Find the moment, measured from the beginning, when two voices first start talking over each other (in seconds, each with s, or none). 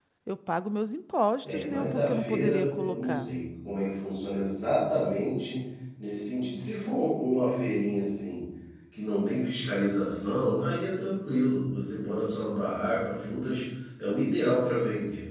1.4 s